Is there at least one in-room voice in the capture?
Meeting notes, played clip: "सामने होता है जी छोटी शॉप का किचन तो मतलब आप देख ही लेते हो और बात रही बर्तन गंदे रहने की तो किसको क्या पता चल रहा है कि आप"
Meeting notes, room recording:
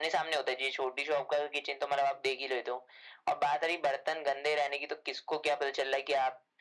No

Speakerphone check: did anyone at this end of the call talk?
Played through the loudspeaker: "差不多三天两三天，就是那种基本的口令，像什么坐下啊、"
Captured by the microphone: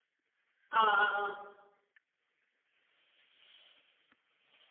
Yes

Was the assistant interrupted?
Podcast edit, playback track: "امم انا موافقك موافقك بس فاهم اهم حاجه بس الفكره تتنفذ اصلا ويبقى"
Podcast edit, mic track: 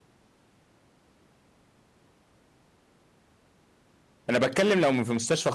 Yes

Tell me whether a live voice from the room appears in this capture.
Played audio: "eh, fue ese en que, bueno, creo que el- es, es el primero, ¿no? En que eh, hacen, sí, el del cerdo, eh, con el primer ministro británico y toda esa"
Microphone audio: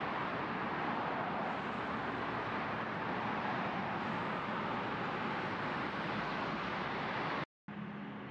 No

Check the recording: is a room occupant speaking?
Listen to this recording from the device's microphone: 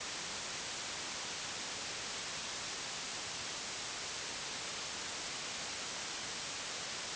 No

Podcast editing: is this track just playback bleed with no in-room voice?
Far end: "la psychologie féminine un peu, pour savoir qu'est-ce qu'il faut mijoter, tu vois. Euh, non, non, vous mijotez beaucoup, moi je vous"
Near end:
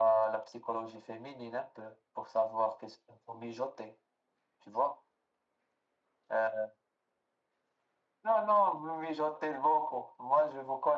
Yes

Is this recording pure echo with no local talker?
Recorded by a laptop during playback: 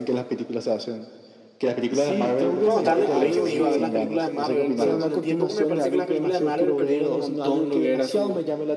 No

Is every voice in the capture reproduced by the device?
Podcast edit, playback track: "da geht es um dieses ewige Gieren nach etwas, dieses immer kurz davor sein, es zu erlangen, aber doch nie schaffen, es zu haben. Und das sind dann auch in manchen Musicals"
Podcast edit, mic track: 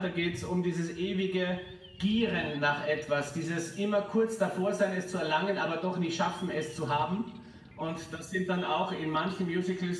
Yes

